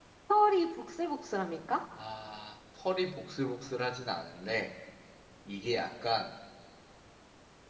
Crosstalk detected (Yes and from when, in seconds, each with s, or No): No